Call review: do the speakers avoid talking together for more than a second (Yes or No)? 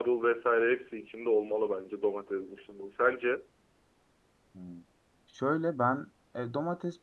Yes